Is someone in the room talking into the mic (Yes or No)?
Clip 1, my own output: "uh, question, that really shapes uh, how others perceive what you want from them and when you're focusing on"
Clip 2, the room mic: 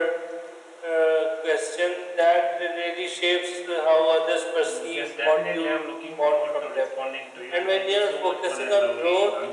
Yes